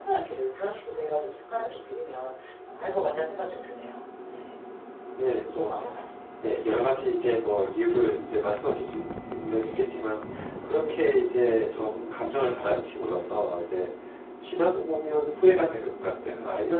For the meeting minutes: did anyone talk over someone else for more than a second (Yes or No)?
No